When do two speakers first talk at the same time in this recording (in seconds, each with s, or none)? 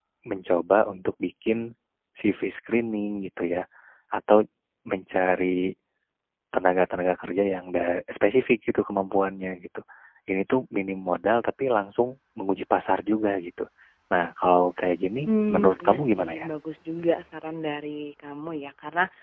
15.2 s